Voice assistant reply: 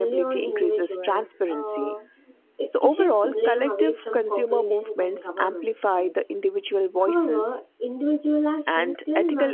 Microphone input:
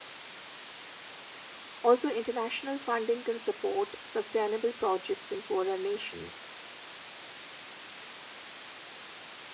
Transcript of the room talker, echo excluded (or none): Also, international funding can support sustainable projects in poorer nations.